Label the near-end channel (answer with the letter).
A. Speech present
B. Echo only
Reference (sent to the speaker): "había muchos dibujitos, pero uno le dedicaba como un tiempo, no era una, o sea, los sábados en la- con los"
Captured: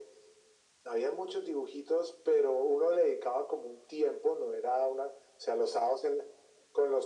B